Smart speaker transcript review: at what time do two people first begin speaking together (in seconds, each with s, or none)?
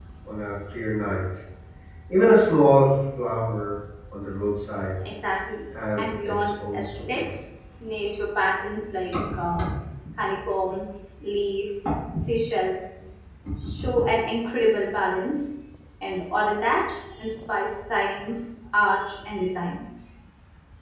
6.0 s